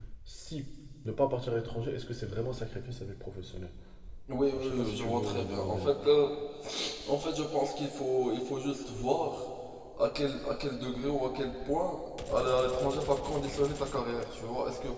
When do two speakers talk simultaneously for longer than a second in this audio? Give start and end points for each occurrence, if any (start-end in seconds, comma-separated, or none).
4.5-5.9